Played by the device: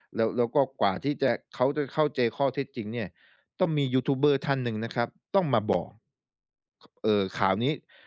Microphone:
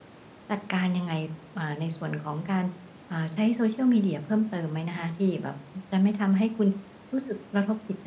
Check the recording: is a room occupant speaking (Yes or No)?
Yes